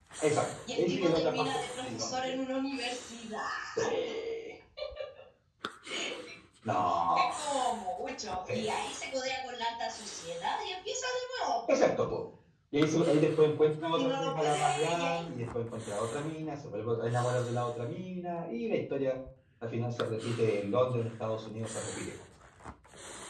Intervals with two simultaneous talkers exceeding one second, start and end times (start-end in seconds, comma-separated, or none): 0.7-2.2, 13.9-15.2